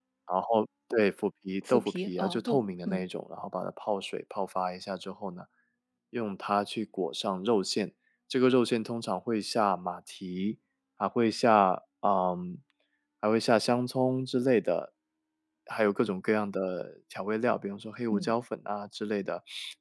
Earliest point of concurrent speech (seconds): 1.6 s

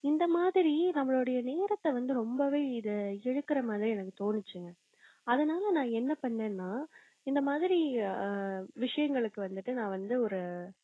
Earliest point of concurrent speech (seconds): none

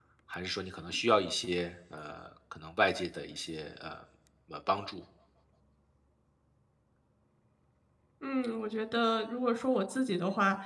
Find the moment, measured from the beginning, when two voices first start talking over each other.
none

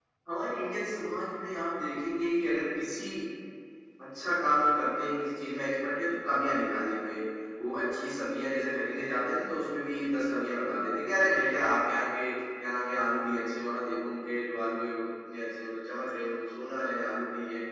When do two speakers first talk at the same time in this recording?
none

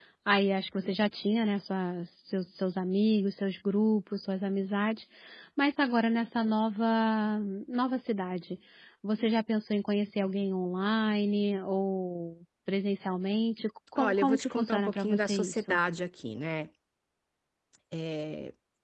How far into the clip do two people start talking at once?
14.0 s

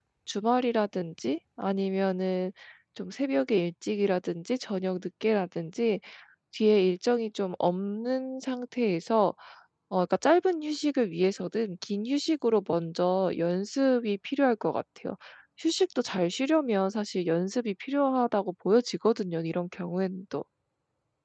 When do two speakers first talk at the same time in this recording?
none

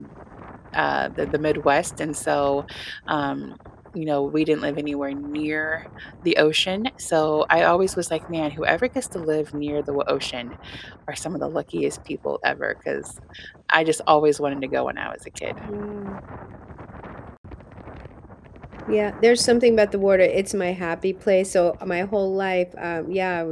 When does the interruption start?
none

